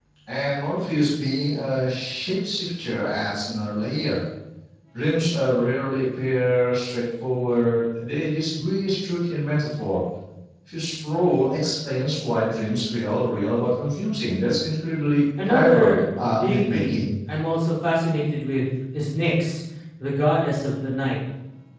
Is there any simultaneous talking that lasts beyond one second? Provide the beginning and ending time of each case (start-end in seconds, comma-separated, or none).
15.4-17.0